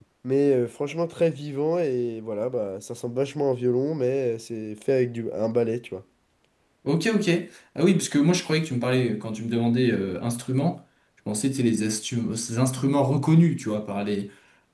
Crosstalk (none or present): none